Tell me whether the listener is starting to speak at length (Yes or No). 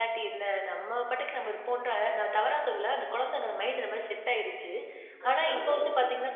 No